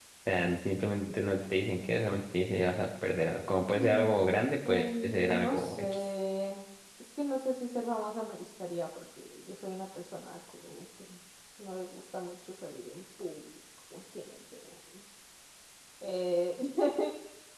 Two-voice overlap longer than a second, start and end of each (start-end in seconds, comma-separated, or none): 4.6-6.1